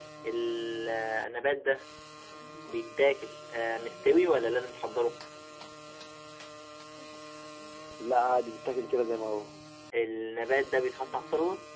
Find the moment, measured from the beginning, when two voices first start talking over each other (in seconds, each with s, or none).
none